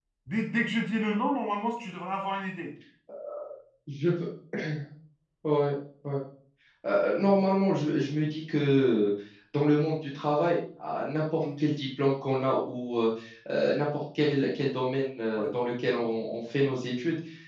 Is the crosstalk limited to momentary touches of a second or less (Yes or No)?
Yes